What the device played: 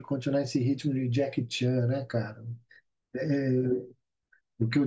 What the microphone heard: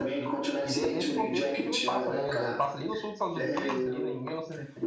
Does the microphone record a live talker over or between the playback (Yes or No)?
Yes